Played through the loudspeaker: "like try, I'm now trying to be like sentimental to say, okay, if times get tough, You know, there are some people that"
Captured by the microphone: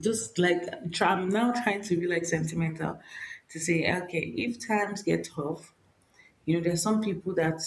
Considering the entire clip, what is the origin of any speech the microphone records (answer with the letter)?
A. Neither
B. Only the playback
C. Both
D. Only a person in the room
B